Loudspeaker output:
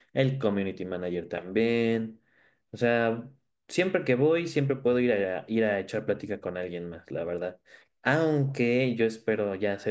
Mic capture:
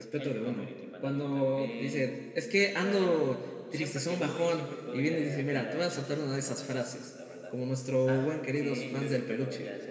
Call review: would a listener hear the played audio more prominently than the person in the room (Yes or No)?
No